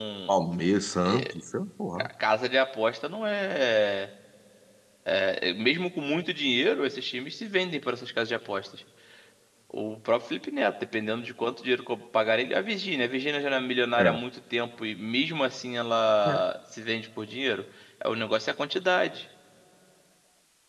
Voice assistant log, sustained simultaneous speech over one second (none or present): none